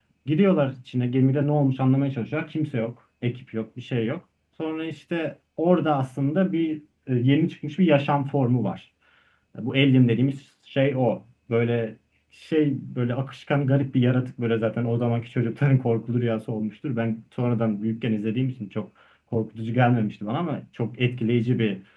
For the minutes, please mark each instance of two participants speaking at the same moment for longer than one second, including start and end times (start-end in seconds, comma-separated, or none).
none